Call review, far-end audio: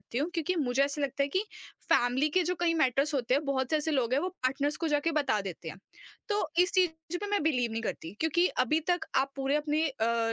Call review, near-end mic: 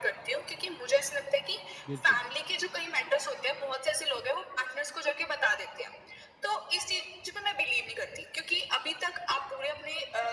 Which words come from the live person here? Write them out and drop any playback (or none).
बिल्कुल।